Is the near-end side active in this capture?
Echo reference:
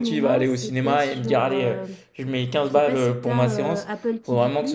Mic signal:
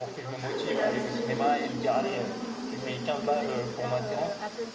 Yes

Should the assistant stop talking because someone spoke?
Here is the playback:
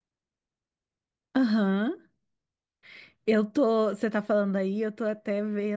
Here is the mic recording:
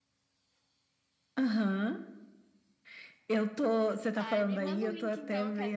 Yes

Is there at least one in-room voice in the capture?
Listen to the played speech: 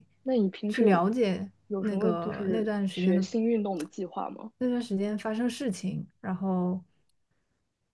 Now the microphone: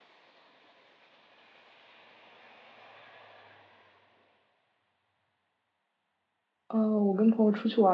Yes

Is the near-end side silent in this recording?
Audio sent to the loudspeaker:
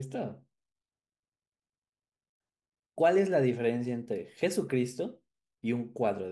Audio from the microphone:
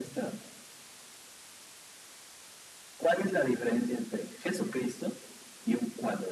Yes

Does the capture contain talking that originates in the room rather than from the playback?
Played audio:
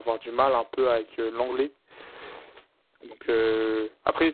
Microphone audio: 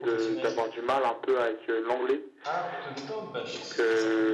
Yes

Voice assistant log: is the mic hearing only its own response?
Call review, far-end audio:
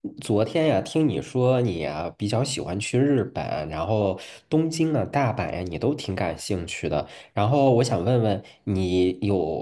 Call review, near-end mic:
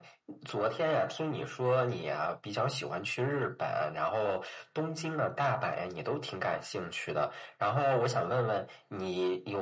Yes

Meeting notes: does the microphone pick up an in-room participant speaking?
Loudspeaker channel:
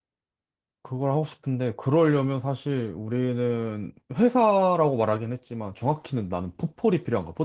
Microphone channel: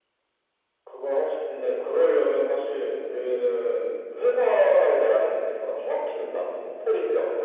No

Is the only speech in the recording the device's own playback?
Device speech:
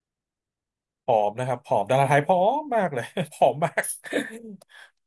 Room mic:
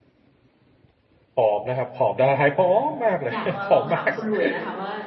No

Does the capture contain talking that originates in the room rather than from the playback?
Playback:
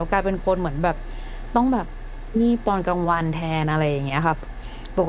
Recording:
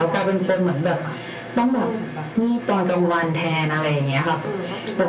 Yes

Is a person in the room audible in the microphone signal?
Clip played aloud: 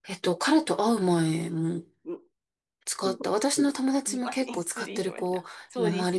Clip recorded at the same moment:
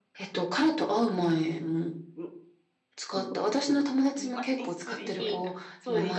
Yes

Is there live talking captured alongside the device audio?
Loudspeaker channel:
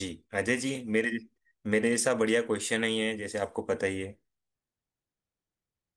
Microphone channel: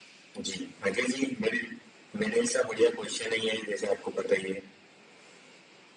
No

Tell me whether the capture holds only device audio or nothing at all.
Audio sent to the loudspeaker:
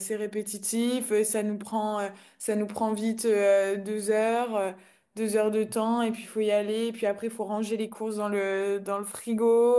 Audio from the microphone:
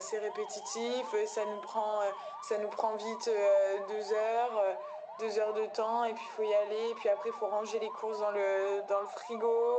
Yes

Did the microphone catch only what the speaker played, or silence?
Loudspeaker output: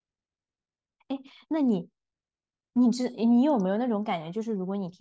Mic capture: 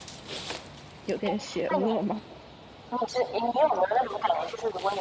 No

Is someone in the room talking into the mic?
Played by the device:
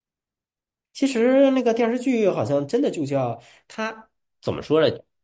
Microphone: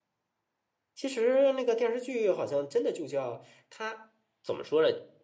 No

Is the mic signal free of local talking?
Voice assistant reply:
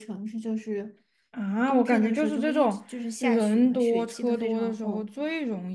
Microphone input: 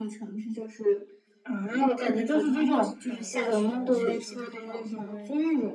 No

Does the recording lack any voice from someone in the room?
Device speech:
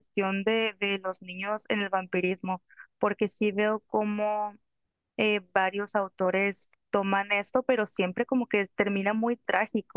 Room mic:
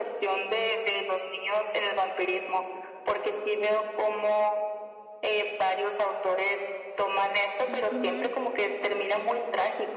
No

